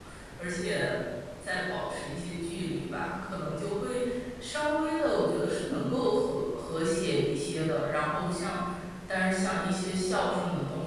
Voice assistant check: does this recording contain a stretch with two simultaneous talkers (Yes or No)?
No